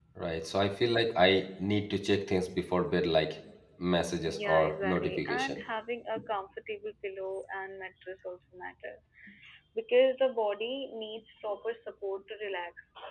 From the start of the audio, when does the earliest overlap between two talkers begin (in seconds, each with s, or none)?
4.3 s